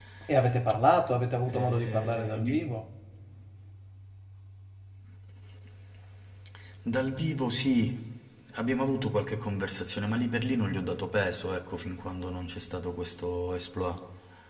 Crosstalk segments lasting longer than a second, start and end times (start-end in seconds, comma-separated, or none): 1.5-2.7